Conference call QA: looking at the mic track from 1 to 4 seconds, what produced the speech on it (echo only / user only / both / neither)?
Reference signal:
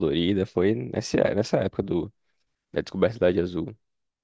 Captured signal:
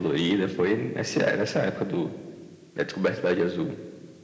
echo only